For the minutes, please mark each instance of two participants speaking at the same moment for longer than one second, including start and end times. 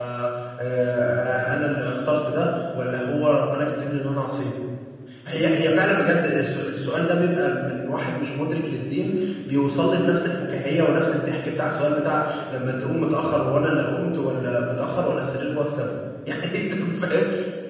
none

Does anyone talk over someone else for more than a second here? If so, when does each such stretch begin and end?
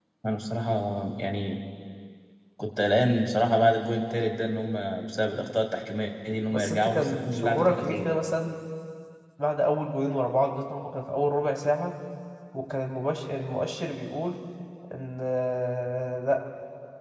6.5-8.1

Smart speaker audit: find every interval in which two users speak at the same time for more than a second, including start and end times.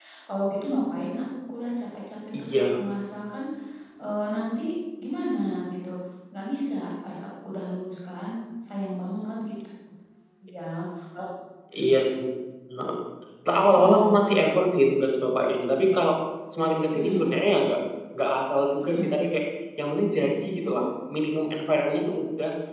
none

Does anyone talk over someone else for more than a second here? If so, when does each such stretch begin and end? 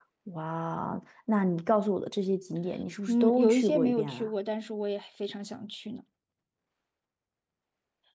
3.1-4.3

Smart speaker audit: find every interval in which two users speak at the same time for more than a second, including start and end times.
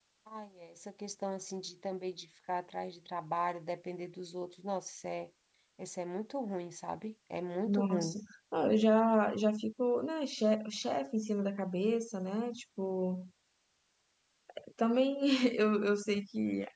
none

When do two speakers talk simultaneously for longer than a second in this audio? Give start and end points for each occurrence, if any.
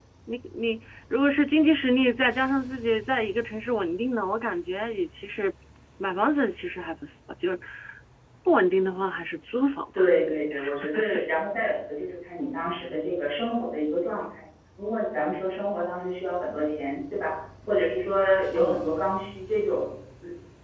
none

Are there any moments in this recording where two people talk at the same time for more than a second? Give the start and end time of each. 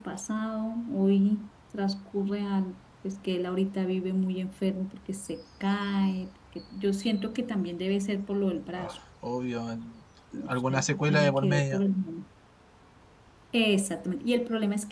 10.5-11.8

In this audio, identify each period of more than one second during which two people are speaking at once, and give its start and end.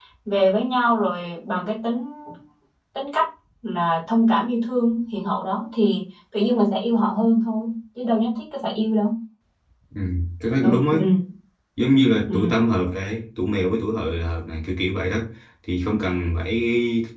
none

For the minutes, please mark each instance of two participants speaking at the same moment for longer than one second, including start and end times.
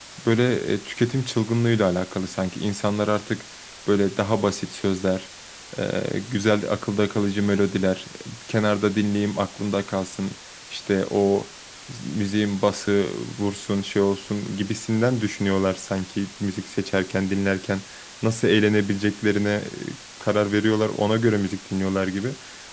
none

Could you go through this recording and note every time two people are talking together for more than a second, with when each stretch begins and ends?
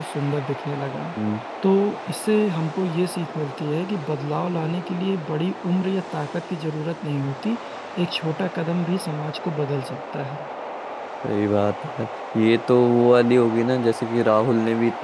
none

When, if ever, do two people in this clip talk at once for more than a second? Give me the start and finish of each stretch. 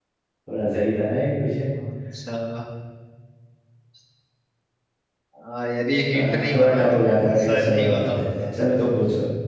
6.1-8.5

